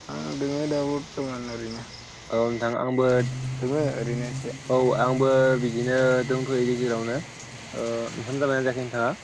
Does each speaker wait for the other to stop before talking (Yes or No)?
Yes